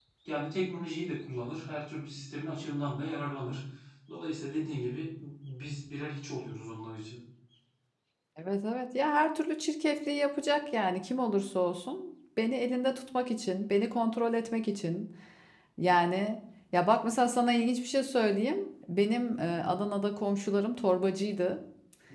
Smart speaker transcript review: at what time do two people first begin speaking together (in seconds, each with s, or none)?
none